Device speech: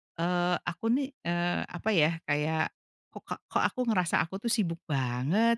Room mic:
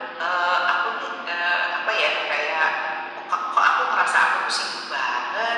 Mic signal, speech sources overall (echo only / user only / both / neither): echo only